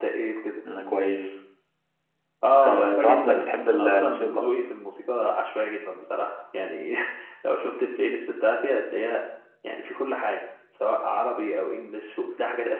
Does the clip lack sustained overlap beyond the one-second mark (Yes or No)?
No